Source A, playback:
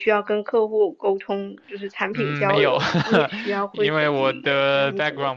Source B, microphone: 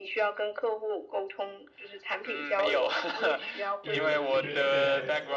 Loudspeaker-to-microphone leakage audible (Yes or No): Yes